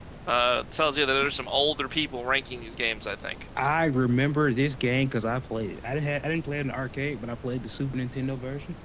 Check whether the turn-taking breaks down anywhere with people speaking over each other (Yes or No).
No